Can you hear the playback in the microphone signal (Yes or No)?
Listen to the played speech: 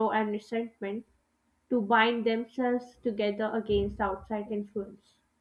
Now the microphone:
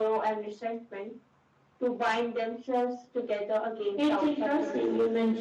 Yes